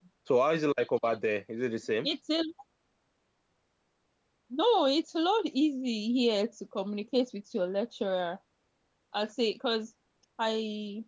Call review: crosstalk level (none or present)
none